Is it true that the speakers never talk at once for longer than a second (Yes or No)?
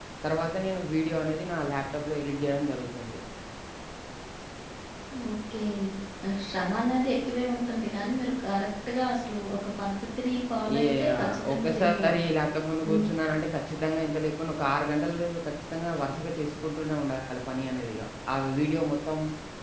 No